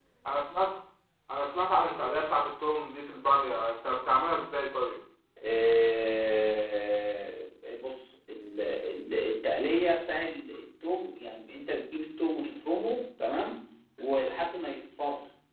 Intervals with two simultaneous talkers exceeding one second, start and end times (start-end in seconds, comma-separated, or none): none